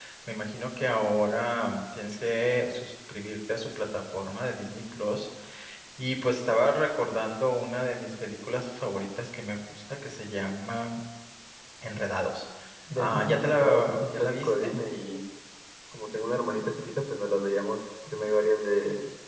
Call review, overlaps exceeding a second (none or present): present